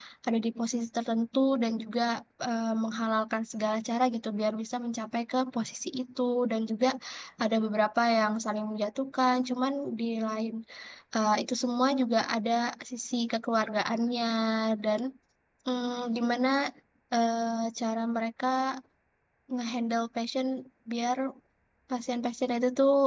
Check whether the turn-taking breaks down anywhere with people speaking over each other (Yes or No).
No